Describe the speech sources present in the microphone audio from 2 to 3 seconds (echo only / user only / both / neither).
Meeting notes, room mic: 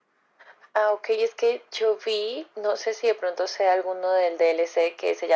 echo only